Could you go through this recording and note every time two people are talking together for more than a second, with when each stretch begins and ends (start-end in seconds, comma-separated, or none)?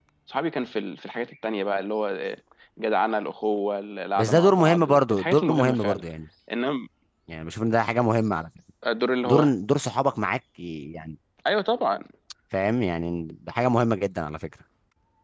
4.2-6.0